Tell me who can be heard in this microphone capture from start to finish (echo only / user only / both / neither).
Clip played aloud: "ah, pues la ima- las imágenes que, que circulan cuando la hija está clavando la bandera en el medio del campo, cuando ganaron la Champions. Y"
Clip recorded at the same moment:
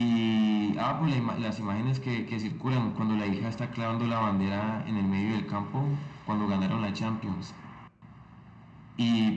echo only